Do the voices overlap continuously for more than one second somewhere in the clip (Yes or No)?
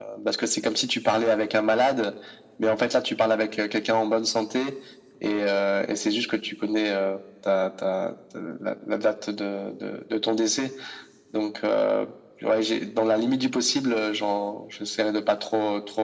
No